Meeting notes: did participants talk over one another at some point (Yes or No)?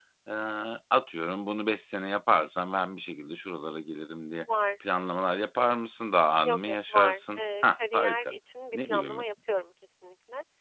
Yes